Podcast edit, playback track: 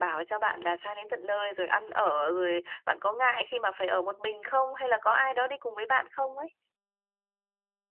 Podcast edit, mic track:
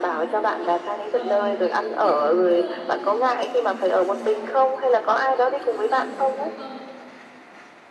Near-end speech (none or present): present